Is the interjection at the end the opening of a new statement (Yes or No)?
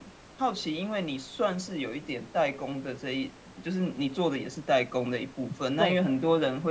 No